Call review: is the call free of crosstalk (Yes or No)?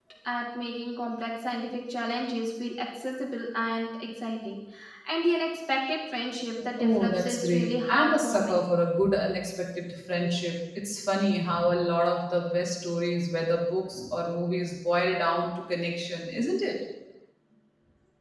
No